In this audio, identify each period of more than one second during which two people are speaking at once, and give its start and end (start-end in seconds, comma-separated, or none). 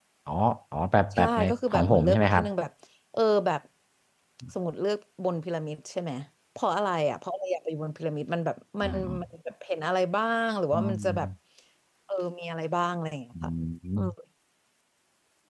1.1-2.4